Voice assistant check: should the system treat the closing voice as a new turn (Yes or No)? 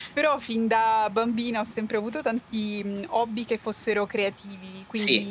No